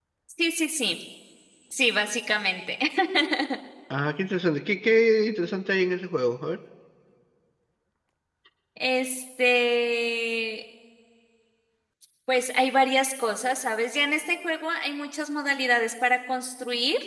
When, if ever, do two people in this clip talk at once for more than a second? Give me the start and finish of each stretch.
none

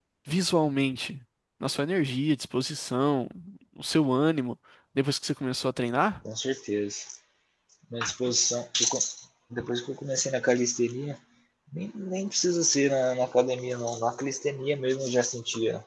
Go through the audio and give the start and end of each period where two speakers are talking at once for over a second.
none

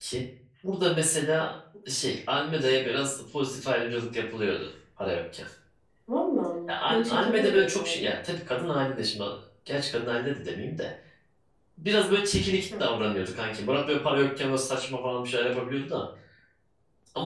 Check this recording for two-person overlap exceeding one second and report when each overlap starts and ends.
6.7-8.1

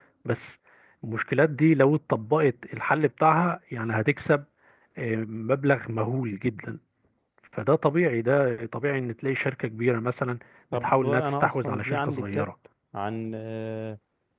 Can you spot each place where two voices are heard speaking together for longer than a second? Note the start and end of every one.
10.7-12.5

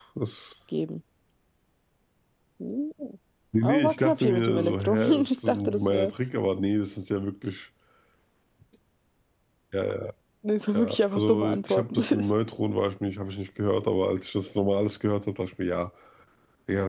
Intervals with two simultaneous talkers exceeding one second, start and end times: 3.6-6.1, 10.7-12.0

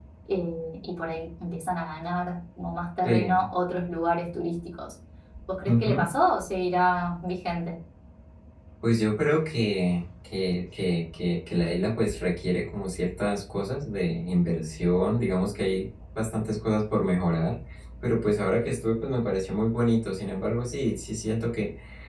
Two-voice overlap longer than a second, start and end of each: none

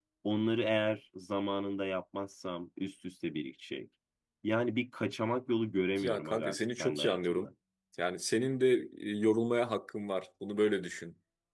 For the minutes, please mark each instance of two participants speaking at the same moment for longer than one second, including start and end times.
6.0-7.5

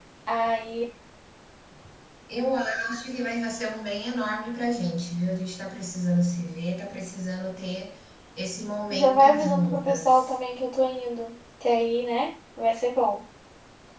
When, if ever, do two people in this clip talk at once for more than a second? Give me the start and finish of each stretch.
8.9-10.3

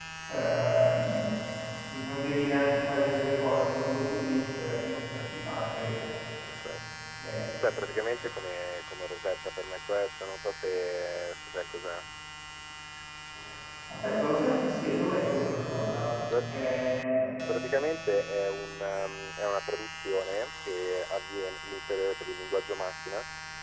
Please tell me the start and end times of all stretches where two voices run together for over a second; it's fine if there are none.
none

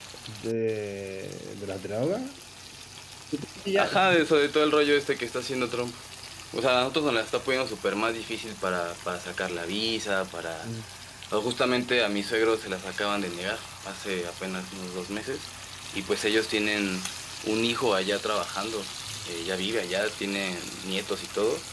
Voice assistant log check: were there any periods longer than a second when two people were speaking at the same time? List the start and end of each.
none

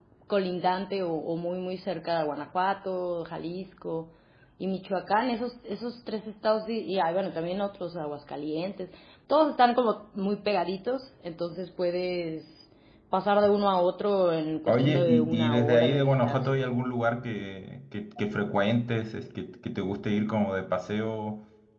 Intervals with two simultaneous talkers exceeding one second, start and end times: 14.7-16.5

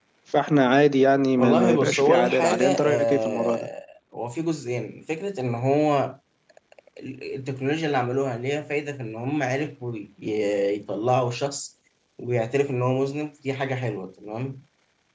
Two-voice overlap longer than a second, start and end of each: 1.4-3.7

